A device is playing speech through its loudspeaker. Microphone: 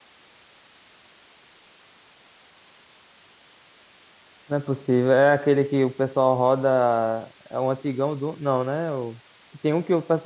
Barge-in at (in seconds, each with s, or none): 4.5 s